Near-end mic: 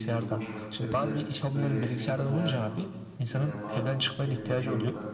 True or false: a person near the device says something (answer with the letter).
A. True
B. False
A